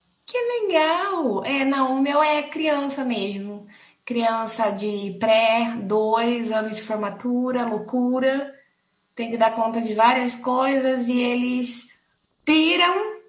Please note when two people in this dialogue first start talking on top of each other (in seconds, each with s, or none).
none